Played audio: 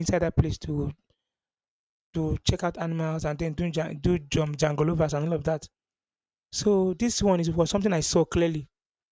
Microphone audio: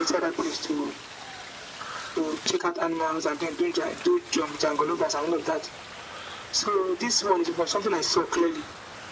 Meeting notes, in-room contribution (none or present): none